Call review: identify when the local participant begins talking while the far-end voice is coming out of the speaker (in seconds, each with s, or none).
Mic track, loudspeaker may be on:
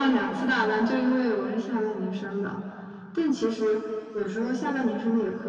none